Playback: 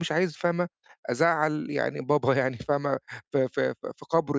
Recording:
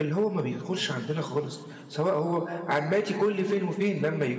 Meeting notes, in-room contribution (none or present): present